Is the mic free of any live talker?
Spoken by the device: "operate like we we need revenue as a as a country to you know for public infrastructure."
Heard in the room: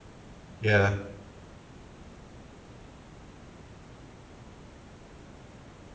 No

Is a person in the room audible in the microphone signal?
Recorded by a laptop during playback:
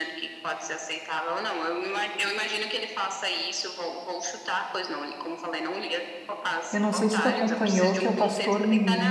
Yes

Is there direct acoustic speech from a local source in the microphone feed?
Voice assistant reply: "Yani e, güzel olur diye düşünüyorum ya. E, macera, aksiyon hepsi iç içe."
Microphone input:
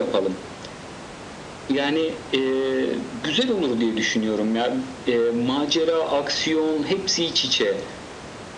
No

